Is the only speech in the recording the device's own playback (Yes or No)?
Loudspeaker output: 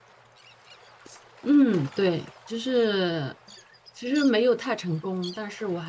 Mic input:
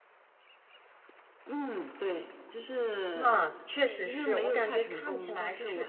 No